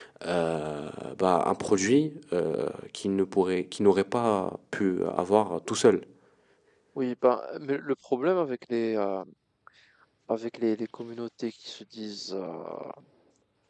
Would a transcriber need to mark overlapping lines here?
No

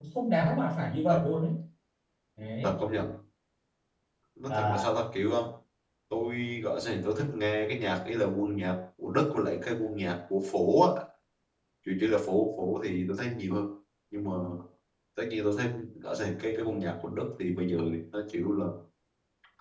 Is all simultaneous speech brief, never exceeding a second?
Yes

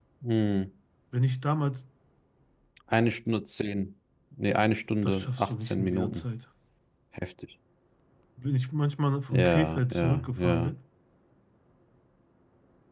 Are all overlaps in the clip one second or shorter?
No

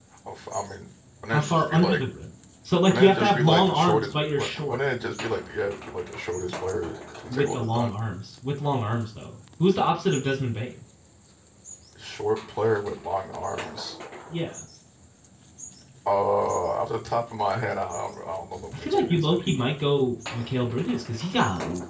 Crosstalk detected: Yes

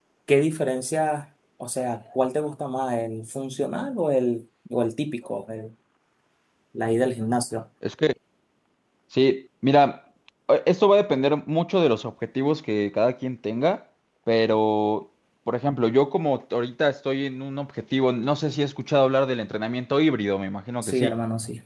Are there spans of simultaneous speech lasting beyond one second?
No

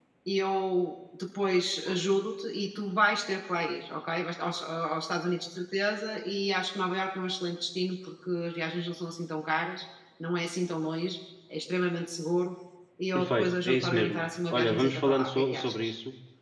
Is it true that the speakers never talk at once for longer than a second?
No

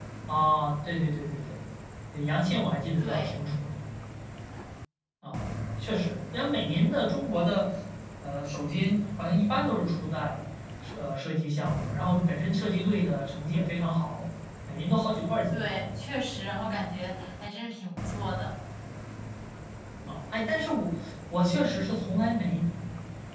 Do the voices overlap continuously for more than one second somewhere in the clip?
No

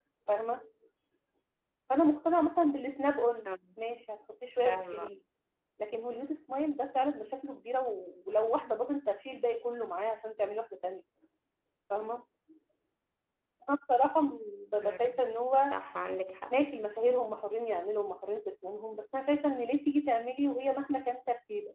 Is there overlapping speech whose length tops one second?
No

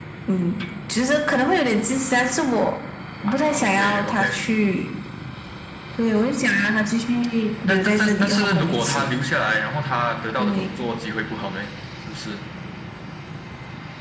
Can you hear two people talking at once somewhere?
Yes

